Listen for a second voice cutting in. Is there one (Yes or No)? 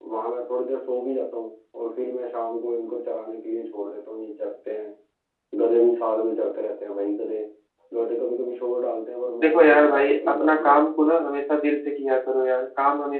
Yes